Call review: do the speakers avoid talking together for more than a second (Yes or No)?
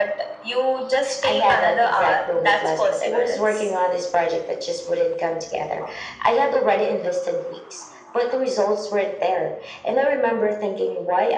No